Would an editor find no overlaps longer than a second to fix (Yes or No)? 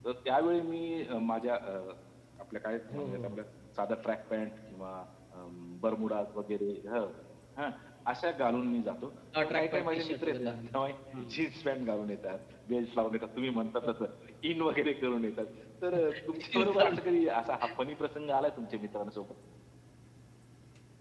No